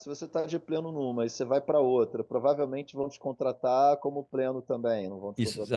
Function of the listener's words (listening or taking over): taking over